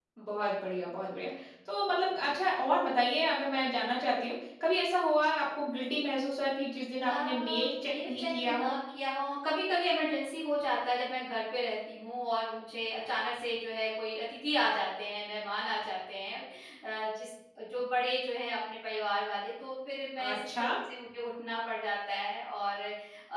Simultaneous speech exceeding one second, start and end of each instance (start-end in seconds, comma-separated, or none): 7.0-8.7